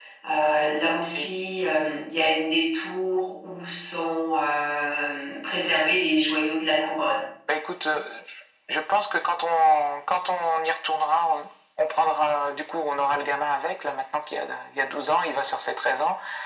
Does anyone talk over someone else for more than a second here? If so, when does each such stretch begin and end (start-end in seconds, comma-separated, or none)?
none